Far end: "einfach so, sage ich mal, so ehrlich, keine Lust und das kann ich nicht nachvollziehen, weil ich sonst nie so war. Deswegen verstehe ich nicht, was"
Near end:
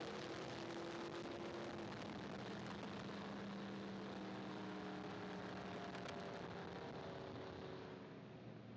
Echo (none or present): none